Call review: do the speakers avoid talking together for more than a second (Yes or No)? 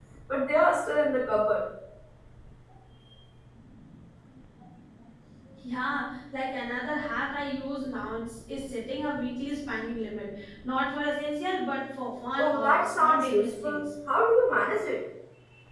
No